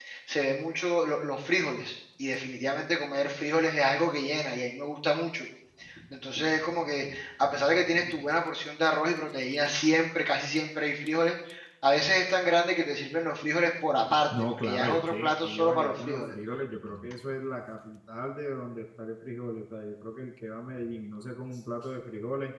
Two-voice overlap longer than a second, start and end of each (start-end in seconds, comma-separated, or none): 14.5-16.3